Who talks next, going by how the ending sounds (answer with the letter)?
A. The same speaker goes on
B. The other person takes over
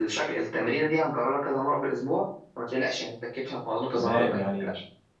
B